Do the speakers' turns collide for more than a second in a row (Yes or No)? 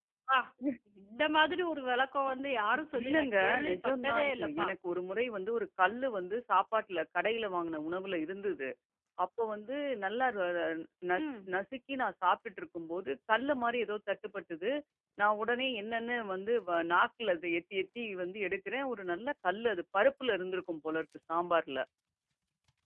Yes